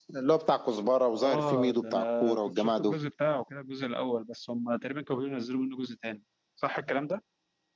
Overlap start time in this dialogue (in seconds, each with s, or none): 1.1 s